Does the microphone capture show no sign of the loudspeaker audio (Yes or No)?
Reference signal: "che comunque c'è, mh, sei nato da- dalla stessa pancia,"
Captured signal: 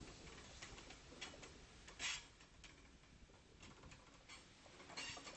Yes